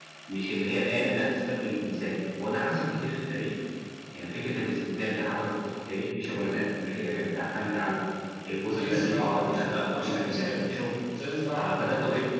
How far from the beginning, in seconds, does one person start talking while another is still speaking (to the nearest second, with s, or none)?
9 s